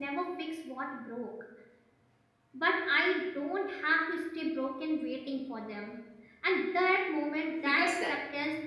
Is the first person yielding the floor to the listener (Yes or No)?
No